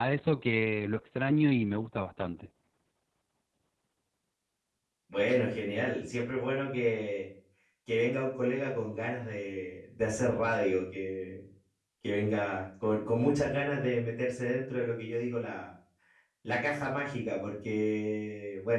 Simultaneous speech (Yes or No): No